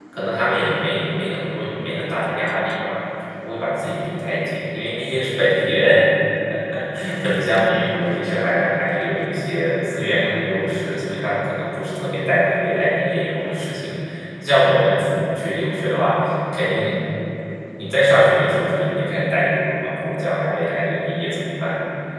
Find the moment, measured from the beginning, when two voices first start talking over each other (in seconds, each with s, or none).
none